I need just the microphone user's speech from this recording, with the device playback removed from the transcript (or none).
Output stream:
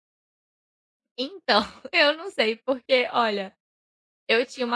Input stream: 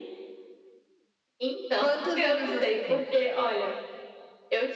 Quantos anos você tem?